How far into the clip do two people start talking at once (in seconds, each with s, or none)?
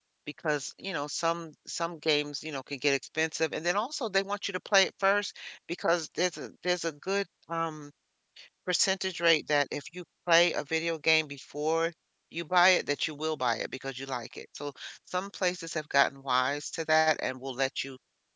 none